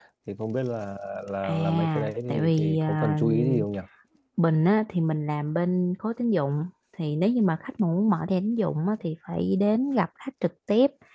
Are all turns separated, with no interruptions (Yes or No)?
No